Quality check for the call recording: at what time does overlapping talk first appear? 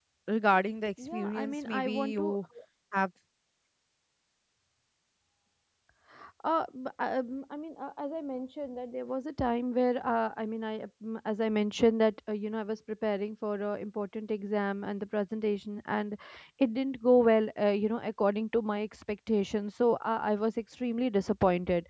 1.0 s

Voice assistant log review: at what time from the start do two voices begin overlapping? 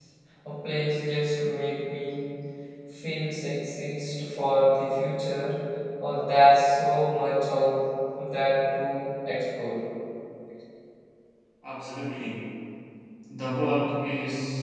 none

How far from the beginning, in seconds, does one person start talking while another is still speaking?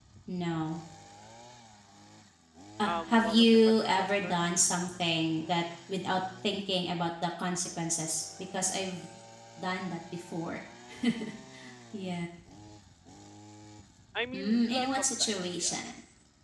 2.8 s

